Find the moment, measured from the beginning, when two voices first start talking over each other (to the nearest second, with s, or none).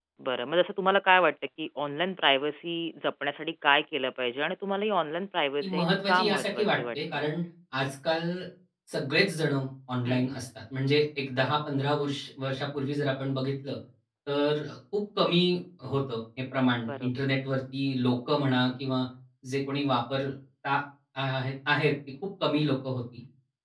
6 s